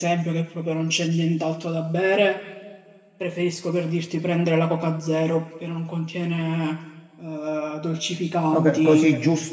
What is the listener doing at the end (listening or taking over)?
taking over